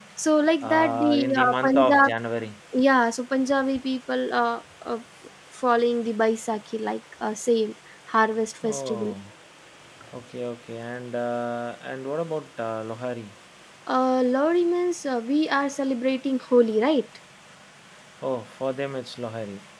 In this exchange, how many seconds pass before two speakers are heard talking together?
1 s

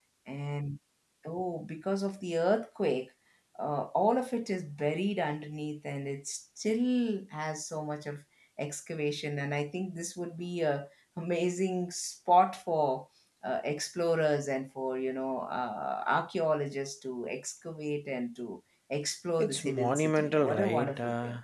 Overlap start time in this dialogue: 19 s

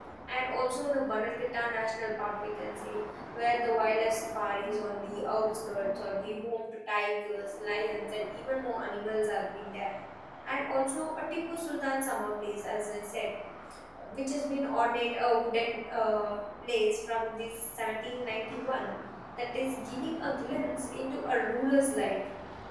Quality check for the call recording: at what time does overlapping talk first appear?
none

